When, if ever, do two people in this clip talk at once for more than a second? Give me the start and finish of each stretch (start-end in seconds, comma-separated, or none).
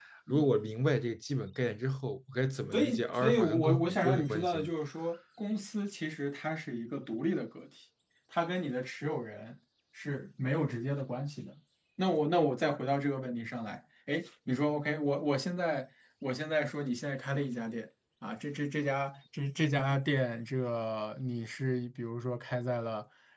2.7-4.7